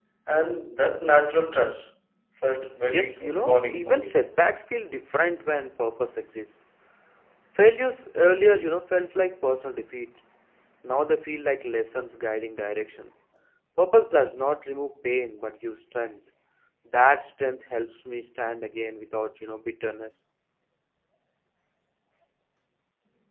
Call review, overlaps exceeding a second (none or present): present